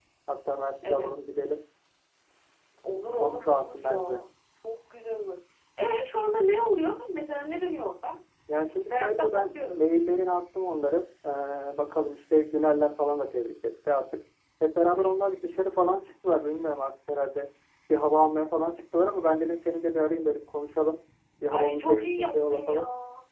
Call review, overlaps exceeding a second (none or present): present